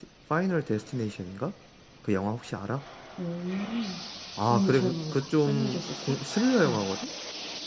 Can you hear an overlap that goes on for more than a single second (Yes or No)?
Yes